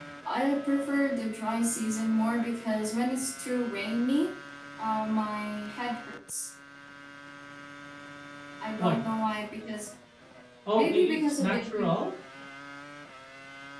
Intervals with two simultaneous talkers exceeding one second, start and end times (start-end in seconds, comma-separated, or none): 10.7-11.9